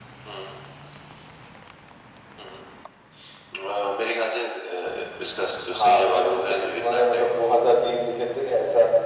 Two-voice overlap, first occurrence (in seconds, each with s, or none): 5.7 s